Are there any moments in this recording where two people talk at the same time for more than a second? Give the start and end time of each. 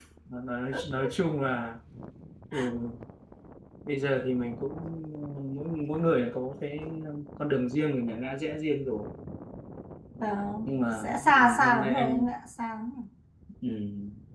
10.7-12.3

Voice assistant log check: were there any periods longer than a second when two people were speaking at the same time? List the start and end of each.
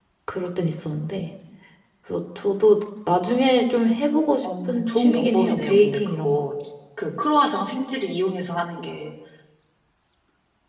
4.7-6.5

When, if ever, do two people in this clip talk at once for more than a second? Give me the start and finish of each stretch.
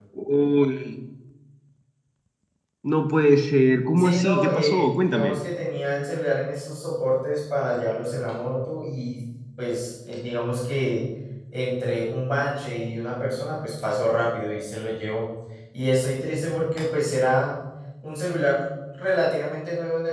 4.0-5.4

